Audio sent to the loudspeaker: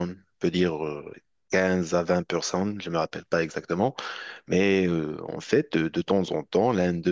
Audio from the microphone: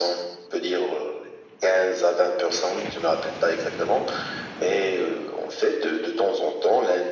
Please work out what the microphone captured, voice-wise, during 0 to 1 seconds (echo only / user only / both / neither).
echo only